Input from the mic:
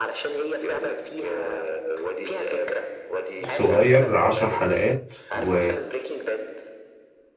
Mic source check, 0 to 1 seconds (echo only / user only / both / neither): echo only